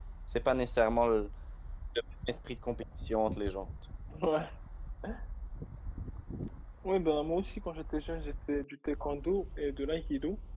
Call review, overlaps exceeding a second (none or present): none